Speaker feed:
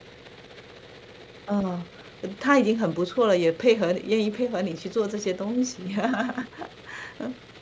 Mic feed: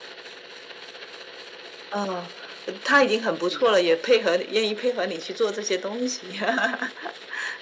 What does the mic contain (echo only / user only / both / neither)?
both